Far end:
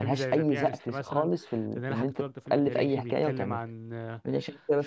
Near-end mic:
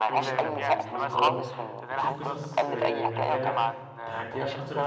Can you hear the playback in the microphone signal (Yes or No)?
Yes